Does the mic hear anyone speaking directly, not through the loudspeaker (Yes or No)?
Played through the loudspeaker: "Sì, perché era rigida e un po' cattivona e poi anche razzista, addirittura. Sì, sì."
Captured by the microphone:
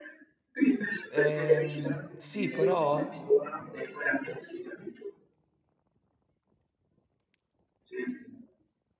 Yes